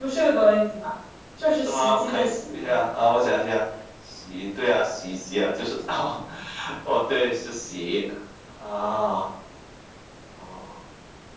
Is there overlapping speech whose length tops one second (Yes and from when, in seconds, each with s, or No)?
Yes, from 1.6 s